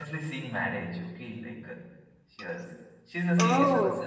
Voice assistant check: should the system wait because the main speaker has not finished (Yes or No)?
Yes